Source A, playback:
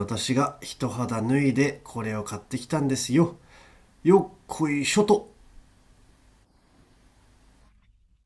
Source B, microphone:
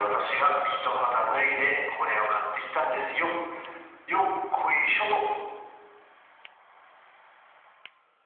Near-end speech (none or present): none